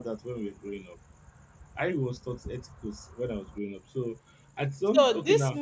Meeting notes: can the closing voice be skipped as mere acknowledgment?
No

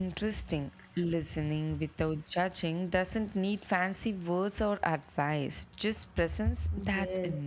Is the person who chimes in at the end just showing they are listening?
No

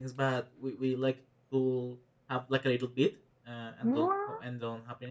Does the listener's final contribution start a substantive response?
No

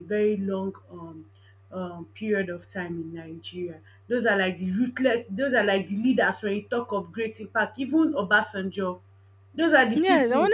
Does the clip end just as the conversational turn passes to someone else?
Yes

